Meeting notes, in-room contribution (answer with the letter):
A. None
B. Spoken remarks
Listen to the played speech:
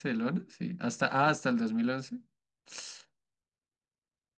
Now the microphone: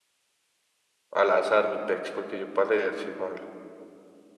B